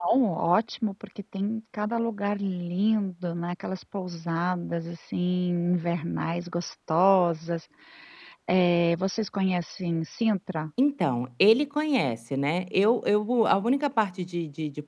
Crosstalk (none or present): none